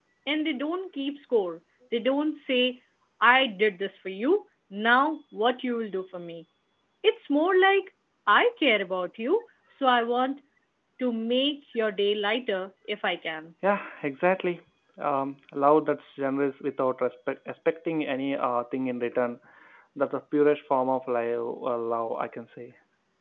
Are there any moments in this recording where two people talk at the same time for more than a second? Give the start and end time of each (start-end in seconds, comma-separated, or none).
none